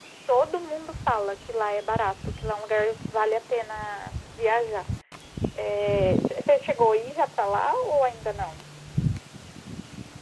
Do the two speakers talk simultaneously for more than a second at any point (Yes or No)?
No